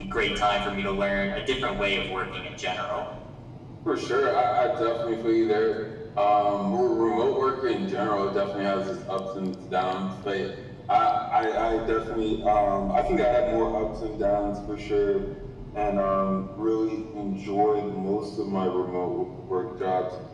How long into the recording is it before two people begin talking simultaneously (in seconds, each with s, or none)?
none